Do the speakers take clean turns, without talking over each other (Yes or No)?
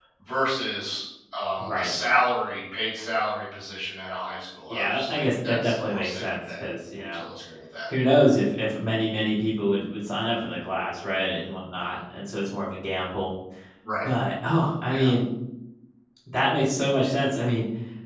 No